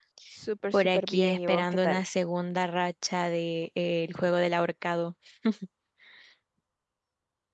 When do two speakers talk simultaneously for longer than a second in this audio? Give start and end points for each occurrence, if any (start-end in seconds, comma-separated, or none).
0.7-2.0